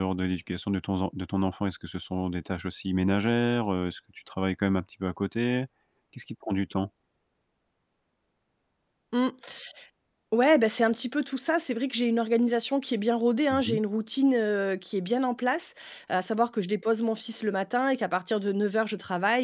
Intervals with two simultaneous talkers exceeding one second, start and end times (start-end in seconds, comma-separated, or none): none